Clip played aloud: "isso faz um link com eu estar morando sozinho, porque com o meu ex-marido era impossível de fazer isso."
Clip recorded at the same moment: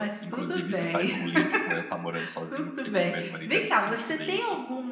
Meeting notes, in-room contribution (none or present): present